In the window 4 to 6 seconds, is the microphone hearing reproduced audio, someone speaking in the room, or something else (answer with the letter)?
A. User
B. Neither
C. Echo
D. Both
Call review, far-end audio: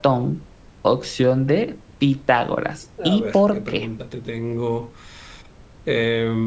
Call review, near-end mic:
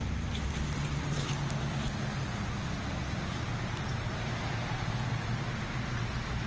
B